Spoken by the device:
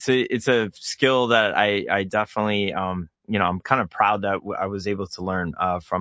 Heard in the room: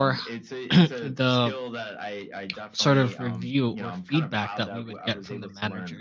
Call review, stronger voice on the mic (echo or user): user